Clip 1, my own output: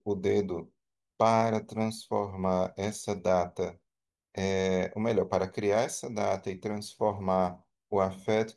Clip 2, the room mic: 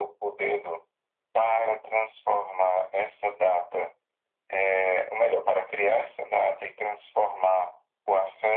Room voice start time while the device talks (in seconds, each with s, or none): none